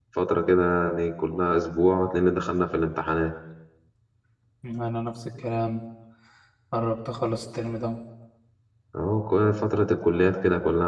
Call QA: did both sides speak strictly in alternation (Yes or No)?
Yes